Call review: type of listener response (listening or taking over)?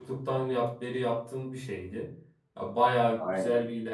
listening